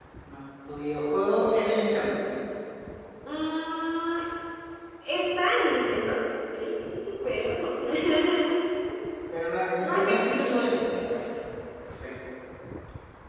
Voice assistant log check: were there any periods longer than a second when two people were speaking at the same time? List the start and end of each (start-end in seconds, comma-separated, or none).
9.8-11.1